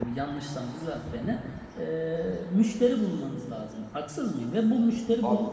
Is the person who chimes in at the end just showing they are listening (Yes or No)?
Yes